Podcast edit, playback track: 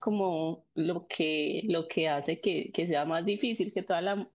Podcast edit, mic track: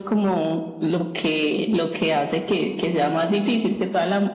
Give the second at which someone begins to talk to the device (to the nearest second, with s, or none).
none